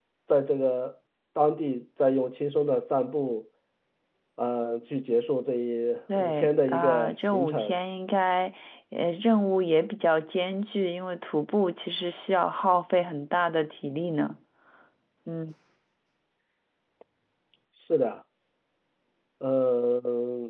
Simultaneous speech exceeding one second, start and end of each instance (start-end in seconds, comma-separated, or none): 6.2-7.8